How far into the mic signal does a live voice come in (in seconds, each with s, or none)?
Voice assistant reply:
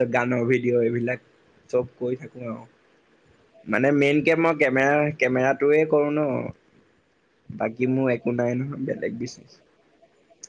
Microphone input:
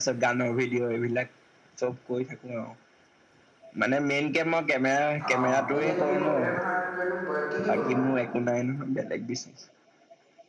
5.3 s